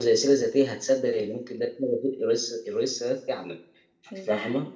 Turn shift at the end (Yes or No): Yes